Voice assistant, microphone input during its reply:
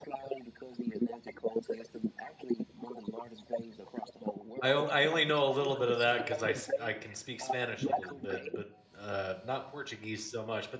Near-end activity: present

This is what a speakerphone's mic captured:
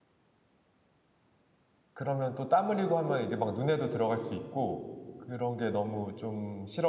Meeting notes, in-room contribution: present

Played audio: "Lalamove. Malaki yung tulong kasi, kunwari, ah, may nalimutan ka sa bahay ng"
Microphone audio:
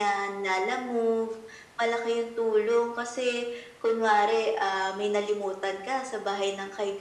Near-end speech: none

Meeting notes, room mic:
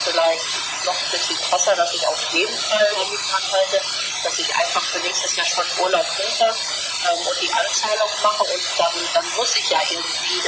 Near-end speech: none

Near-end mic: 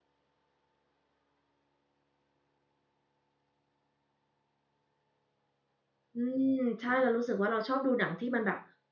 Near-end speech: present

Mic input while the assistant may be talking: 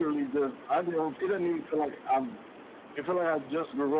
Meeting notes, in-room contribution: none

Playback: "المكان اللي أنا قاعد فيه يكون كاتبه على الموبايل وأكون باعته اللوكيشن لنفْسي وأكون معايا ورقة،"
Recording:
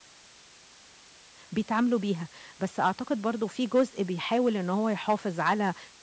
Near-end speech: present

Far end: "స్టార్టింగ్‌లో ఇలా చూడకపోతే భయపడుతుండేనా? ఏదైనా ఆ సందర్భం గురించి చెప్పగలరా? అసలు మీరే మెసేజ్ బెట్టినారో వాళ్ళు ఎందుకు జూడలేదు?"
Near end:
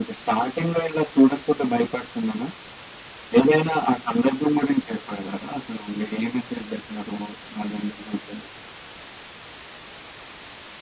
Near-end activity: none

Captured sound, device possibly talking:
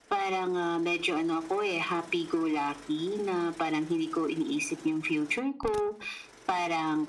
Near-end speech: none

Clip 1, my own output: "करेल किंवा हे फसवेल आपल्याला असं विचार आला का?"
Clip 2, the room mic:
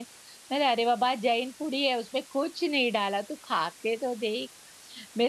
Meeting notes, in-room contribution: present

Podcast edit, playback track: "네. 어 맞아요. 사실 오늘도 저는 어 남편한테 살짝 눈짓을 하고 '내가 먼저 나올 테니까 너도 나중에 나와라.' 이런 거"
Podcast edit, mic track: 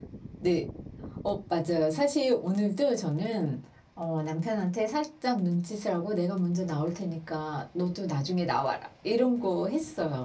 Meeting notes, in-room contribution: none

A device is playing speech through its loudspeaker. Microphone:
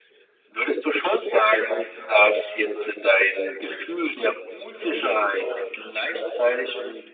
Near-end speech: none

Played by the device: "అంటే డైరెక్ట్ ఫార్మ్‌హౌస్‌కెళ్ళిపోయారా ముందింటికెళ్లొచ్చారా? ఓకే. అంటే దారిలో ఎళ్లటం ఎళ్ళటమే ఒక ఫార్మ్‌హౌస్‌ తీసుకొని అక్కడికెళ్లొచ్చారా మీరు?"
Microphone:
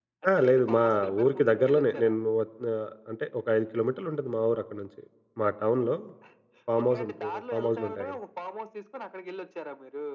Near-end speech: present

